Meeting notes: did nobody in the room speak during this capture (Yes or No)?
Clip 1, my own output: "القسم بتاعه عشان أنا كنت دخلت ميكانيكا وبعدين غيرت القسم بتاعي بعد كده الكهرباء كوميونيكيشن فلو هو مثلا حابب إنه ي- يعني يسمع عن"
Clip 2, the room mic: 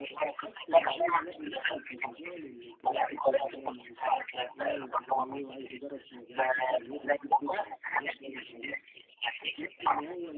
No